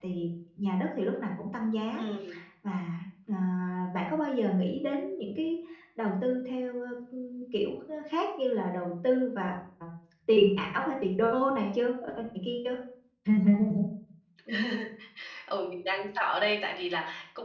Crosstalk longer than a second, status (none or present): none